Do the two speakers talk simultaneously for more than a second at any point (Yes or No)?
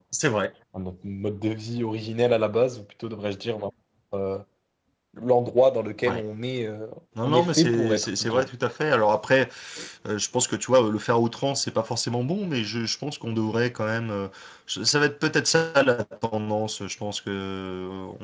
Yes